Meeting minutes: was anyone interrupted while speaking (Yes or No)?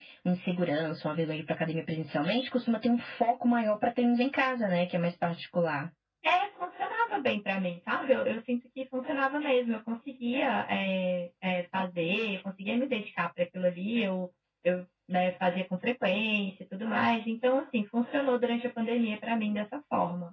No